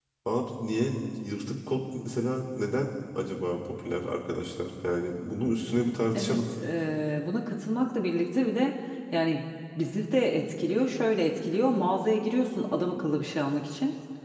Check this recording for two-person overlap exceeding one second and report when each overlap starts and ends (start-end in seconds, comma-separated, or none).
none